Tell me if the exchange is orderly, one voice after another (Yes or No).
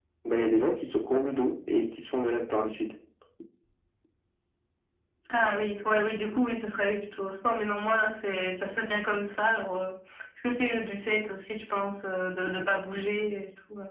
Yes